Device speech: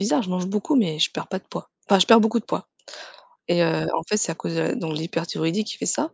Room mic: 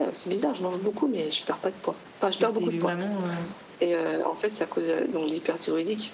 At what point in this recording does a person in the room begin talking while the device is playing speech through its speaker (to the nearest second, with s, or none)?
2 s